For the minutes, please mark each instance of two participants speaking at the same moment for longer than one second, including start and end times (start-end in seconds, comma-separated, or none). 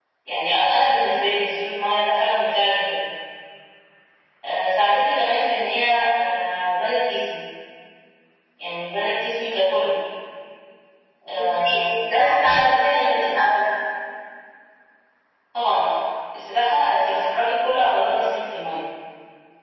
11.4-13.6